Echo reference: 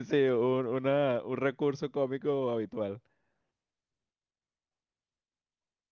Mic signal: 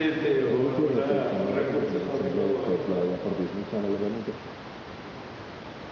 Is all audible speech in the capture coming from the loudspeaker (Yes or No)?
No